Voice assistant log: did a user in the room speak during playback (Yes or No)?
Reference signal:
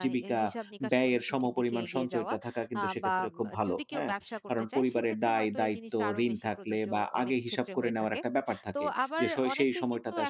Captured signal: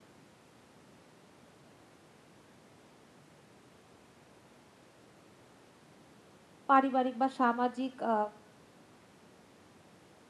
Yes